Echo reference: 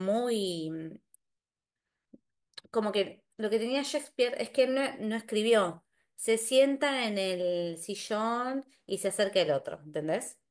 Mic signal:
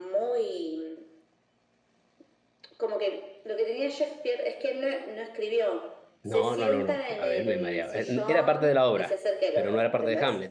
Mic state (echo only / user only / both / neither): both